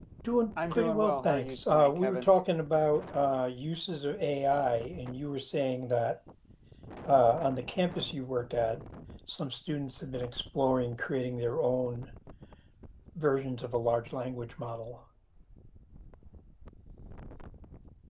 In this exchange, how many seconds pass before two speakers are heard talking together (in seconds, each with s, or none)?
0.7 s